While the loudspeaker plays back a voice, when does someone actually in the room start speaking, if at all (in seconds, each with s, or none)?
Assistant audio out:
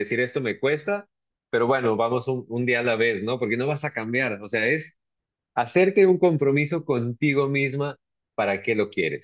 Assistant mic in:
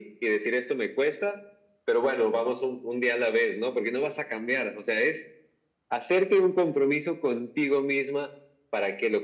none